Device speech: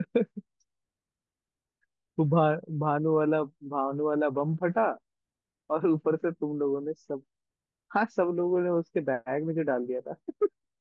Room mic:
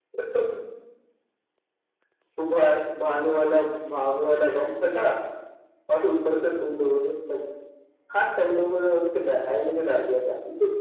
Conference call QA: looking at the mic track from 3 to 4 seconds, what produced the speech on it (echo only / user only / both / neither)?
echo only